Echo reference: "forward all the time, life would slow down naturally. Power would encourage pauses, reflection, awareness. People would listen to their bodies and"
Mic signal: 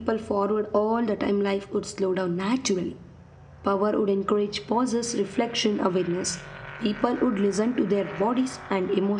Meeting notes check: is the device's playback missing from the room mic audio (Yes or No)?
No